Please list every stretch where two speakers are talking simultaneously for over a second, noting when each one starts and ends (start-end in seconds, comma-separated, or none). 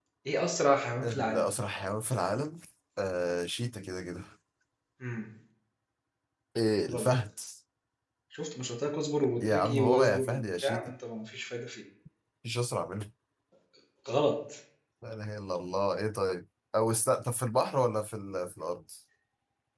9.4-10.9